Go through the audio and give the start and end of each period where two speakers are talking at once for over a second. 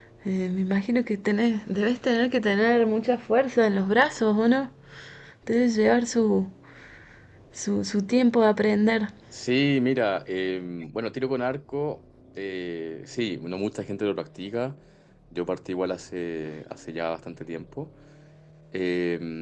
none

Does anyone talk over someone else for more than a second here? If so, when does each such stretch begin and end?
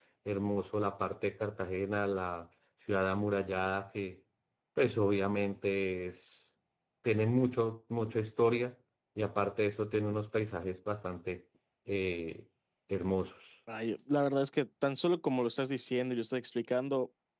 none

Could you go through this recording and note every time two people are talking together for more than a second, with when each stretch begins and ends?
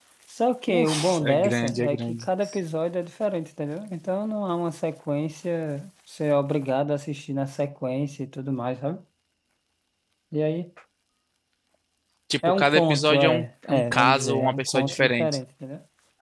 0.7-2.3, 12.5-15.4

